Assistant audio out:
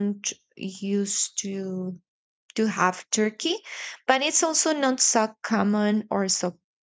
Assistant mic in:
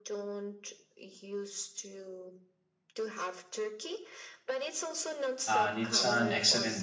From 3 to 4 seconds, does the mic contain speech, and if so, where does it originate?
echo only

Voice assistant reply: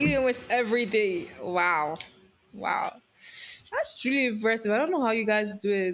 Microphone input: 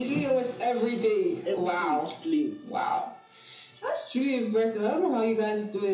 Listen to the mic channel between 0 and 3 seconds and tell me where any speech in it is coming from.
both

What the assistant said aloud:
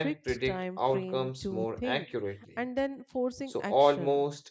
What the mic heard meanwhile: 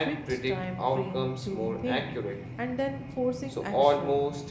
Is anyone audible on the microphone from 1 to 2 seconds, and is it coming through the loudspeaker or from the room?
echo only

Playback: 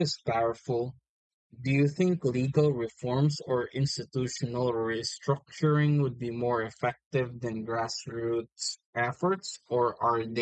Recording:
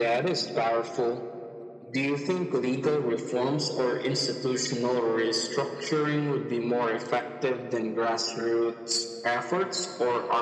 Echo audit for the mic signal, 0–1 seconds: echo only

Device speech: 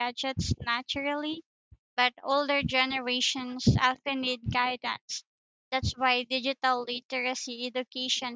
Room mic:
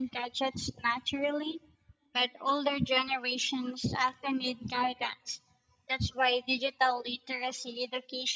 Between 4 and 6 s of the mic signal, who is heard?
echo only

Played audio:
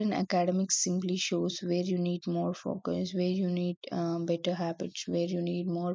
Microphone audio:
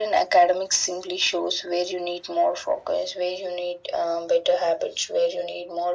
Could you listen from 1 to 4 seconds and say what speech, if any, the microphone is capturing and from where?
echo only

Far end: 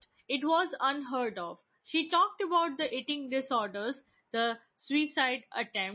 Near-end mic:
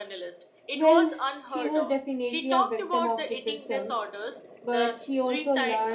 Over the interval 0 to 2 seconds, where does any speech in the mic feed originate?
both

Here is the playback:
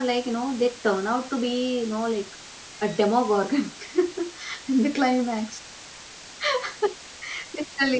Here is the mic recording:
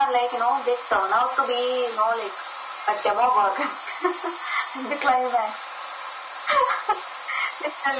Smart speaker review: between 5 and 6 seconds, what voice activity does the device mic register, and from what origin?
echo only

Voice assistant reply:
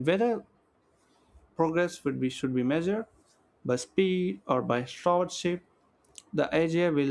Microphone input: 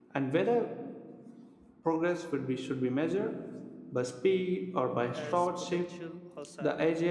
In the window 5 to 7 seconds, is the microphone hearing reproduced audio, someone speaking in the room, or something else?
both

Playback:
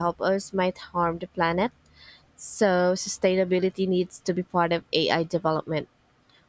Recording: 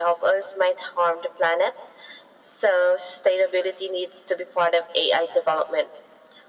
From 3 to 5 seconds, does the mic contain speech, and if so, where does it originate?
echo only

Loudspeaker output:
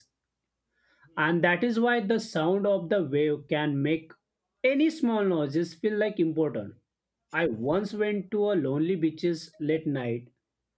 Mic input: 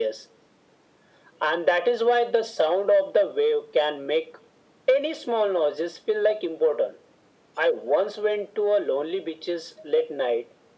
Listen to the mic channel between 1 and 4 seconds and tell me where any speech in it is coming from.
echo only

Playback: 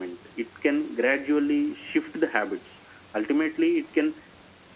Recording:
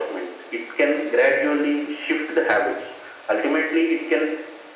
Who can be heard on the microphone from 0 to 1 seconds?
echo only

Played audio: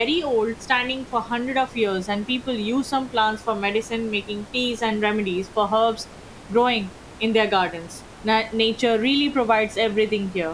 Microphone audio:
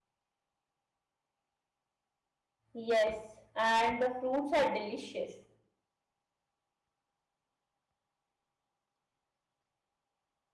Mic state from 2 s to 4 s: user only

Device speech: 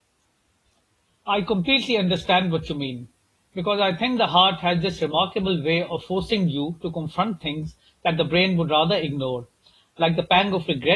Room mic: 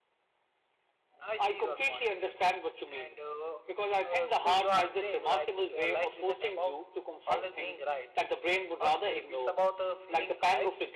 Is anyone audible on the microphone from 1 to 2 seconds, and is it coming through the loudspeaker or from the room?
both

